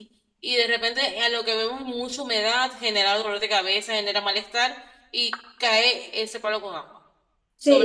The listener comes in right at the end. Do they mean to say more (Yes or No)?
Yes